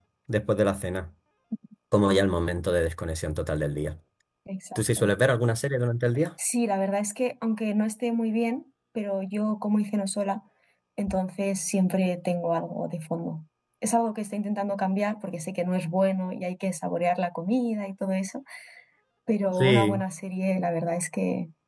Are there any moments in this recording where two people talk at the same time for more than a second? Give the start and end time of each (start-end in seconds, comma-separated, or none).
none